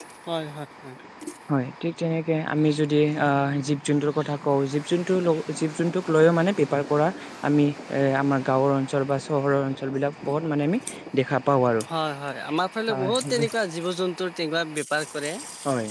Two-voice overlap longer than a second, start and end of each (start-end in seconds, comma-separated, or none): none